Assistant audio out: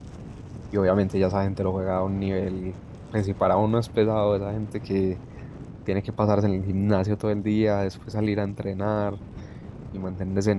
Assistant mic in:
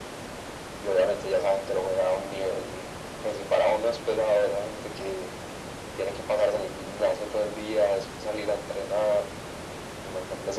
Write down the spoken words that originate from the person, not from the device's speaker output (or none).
none